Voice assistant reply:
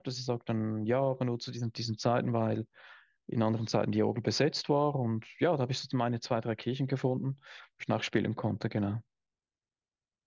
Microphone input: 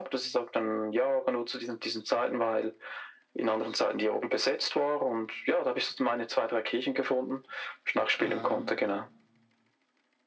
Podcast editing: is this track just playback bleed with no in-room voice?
No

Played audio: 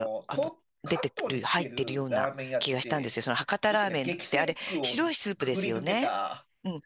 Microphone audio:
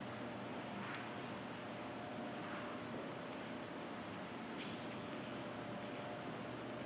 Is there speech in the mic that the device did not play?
No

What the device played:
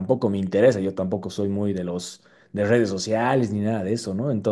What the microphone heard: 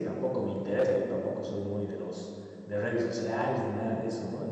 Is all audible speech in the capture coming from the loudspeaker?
Yes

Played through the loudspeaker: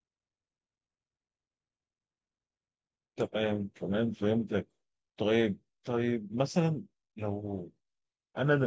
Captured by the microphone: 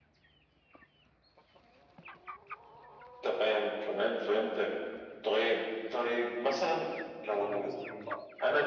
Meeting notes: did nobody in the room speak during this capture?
No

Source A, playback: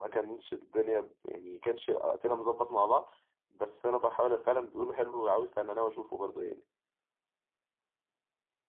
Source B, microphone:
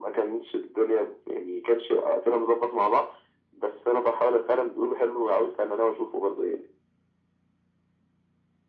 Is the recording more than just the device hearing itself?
No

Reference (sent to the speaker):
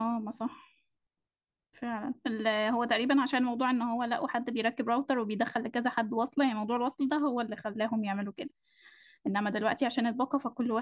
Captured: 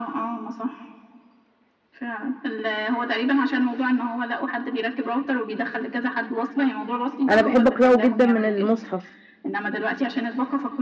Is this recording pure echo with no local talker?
No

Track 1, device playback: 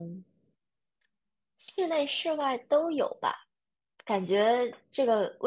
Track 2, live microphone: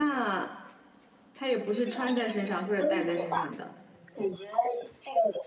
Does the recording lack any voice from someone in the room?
No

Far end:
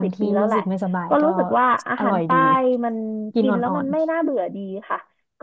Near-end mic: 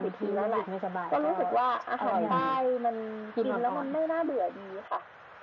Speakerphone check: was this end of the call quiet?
No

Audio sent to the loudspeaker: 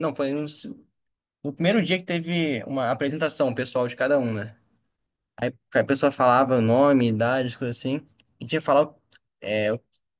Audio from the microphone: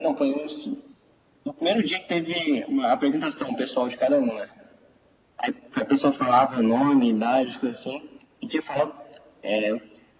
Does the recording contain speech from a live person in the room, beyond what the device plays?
No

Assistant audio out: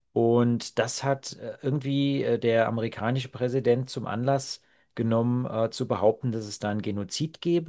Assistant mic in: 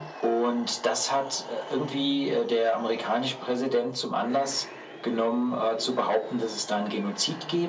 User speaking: No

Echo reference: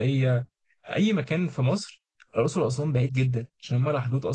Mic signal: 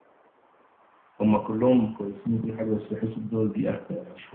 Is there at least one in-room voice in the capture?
Yes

